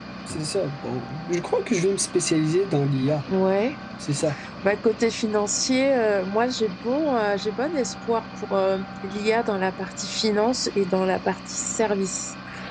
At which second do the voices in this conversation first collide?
none

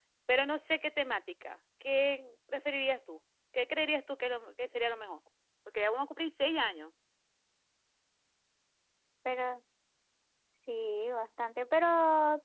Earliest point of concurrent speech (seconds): none

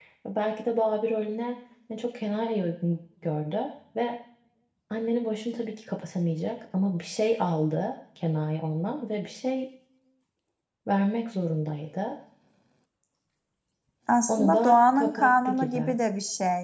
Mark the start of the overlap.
14.3 s

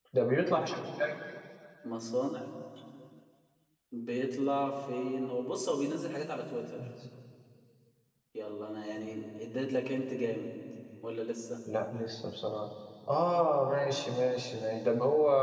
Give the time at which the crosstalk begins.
none

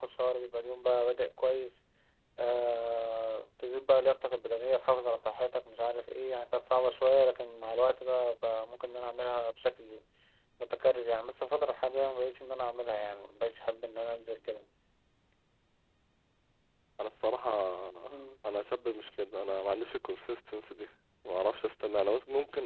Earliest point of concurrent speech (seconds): none

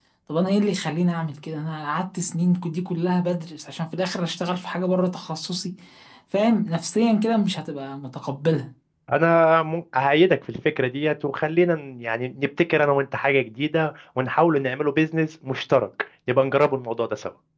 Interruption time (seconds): none

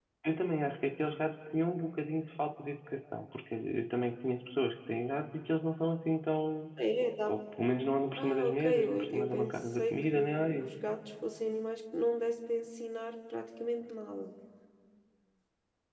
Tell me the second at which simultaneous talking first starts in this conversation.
8.2 s

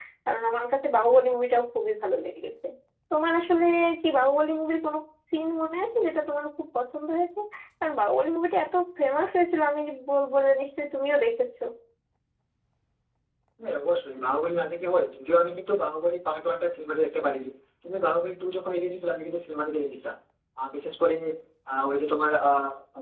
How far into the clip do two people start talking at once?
none

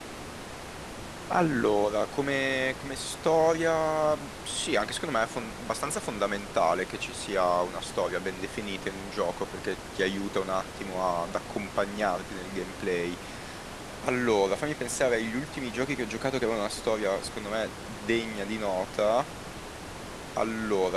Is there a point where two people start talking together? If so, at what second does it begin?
none

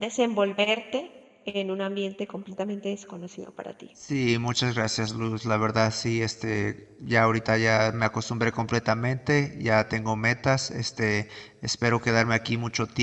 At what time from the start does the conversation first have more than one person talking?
none

